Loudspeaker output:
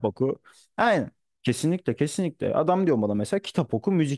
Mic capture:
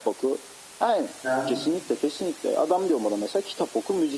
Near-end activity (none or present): present